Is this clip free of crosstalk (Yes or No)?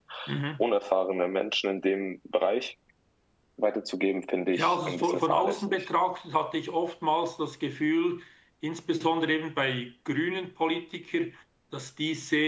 No